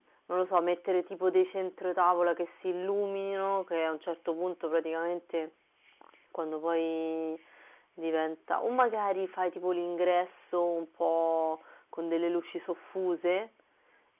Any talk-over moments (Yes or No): No